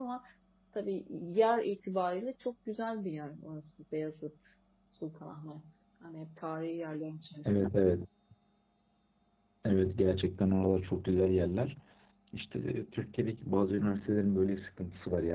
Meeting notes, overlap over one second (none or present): none